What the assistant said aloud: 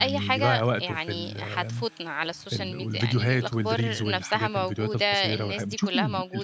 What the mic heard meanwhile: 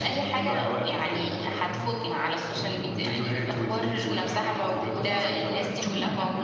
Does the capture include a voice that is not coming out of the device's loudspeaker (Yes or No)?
Yes